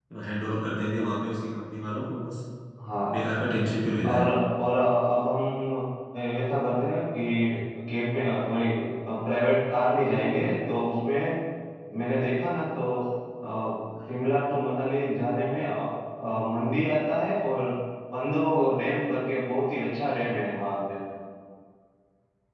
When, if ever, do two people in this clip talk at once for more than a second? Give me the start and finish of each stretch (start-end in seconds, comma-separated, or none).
none